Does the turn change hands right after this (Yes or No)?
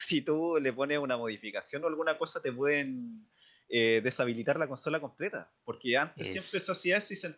No